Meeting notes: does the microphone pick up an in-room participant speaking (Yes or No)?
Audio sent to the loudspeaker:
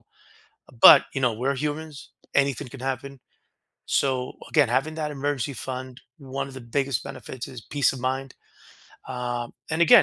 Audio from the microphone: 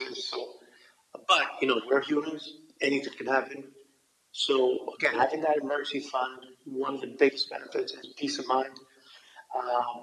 No